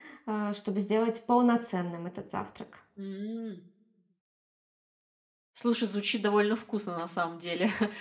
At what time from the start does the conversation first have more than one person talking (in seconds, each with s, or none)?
none